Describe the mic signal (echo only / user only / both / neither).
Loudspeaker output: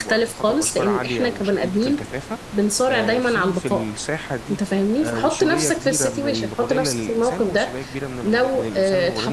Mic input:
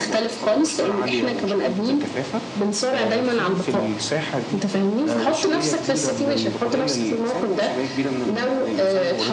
echo only